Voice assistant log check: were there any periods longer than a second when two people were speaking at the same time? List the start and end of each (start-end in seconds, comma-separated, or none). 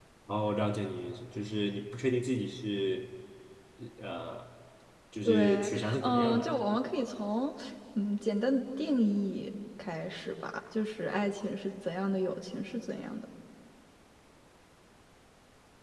5.2-6.5